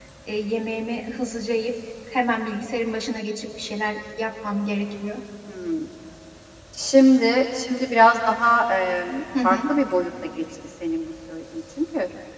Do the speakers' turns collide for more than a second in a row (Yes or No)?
No